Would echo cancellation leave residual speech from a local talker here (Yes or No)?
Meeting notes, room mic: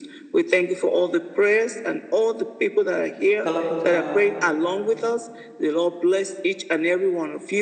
Yes